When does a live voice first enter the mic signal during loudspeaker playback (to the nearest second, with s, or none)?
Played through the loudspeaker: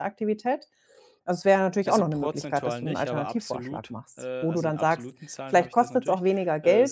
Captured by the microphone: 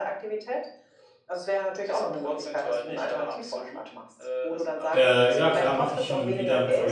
5 s